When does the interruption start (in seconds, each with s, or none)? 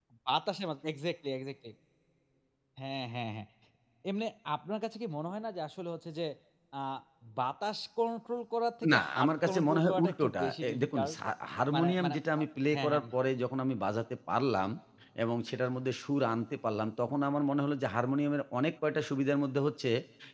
8.9 s